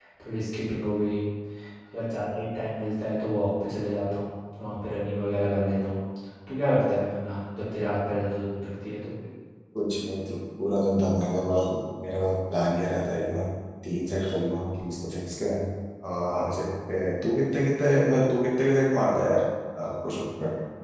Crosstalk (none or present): none